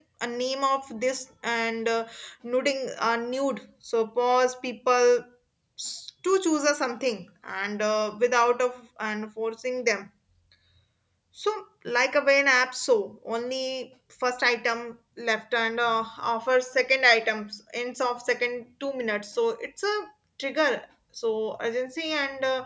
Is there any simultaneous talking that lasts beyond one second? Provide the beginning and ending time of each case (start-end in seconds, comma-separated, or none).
none